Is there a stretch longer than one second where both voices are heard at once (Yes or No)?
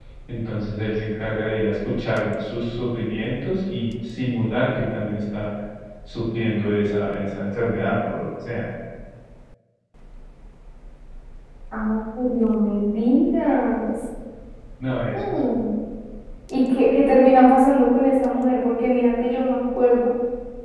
No